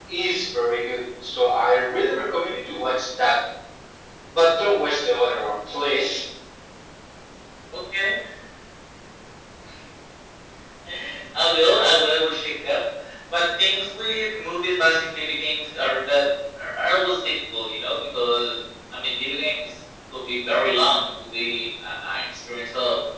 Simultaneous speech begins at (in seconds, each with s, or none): none